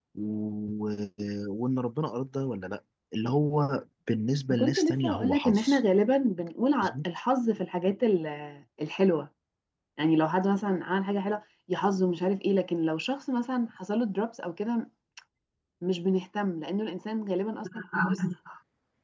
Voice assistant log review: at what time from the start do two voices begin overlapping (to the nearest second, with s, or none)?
4 s